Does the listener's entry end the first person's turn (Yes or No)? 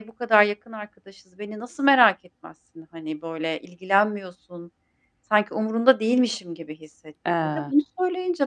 No